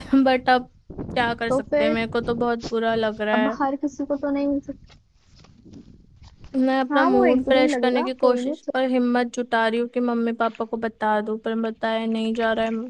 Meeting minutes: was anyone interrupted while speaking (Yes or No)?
Yes